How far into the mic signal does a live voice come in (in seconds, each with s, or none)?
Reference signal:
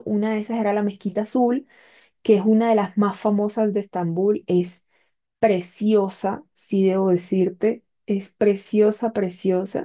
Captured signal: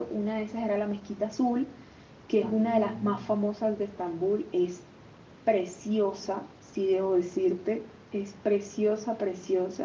2.4 s